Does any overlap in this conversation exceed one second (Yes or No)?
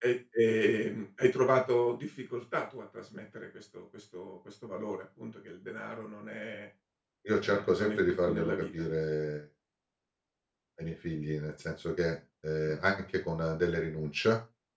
Yes